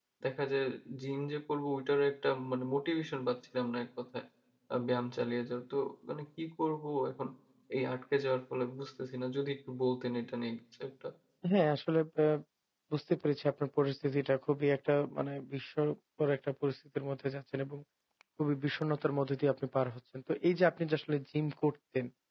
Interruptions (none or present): none